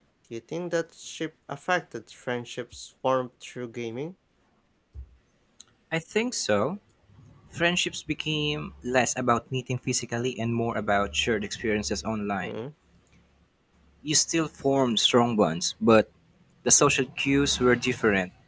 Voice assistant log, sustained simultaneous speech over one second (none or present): none